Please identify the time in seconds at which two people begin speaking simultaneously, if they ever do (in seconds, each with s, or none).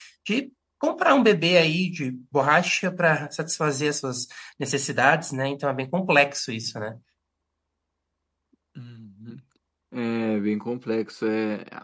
none